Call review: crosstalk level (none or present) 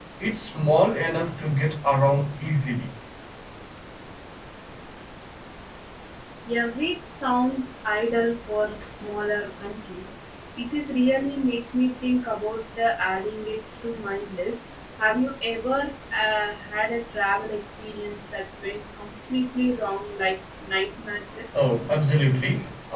none